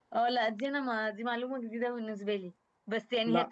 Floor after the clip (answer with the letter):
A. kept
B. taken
A